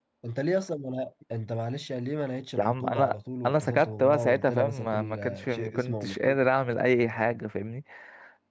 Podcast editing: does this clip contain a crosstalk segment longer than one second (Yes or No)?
Yes